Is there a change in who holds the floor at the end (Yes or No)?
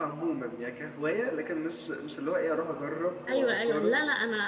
Yes